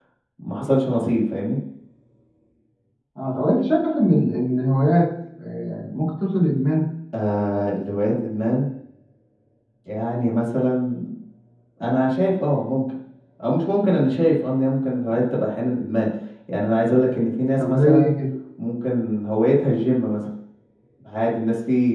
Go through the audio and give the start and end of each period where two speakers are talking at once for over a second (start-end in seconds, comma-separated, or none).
none